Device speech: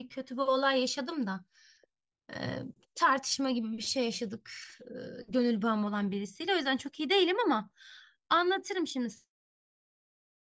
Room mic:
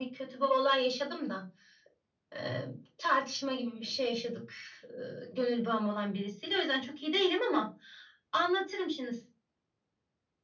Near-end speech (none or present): none